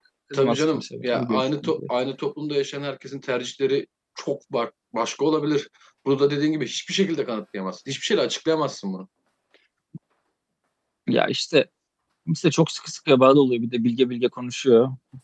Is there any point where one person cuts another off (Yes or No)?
Yes